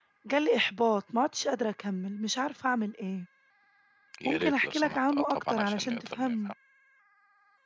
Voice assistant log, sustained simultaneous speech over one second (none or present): present